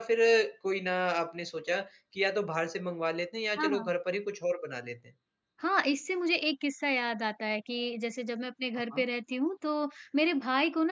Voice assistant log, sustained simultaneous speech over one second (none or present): none